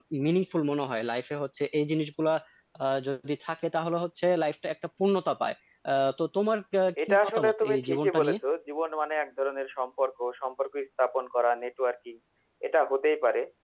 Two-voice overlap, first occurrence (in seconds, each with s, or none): 7.0 s